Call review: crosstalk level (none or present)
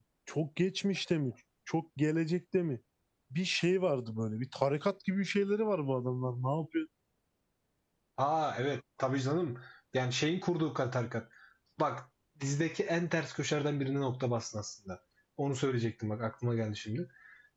none